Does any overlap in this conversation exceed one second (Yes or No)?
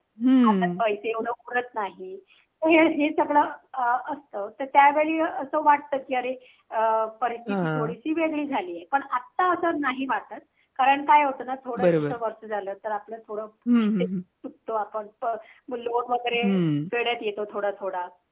No